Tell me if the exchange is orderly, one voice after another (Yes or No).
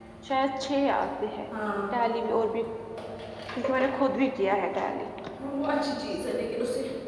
Yes